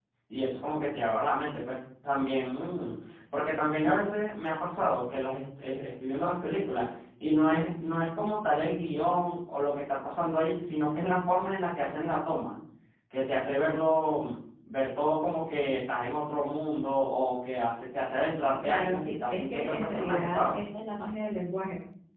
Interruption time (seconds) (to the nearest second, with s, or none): 19 s